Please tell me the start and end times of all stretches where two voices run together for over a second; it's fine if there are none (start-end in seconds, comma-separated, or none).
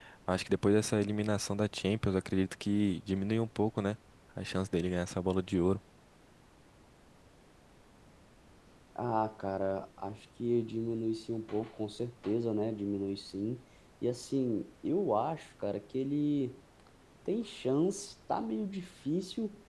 none